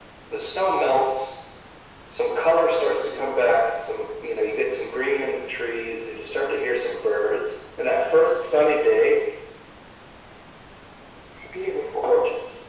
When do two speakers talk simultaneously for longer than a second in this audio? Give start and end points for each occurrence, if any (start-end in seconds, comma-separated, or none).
none